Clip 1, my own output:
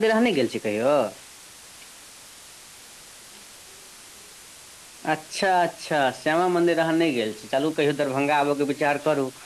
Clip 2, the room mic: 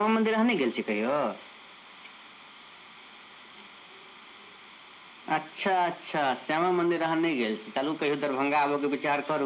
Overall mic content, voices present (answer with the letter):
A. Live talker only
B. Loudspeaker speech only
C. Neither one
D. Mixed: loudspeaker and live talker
B